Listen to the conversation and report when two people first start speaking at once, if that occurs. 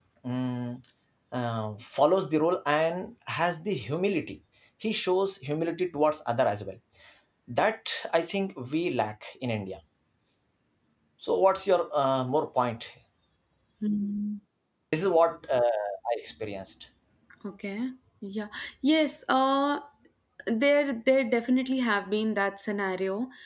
none

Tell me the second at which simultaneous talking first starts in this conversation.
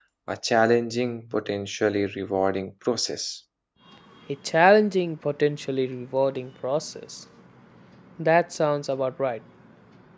none

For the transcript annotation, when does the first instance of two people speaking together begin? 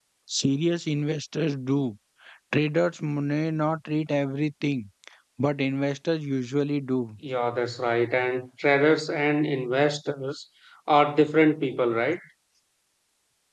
none

